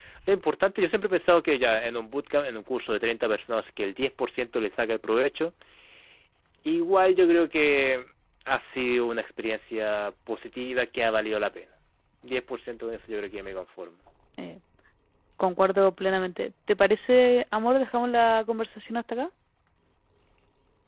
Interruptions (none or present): none